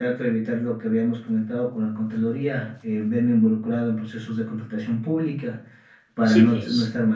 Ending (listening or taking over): listening